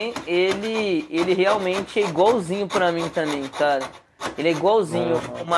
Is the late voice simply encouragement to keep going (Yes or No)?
Yes